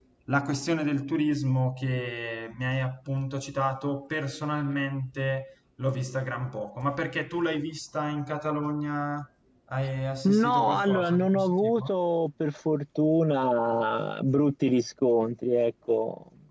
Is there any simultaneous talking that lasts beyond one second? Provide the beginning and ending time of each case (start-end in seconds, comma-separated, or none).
10.2-11.9